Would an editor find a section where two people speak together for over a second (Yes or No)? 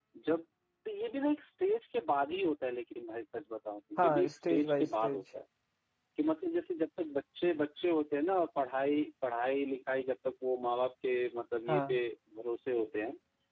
Yes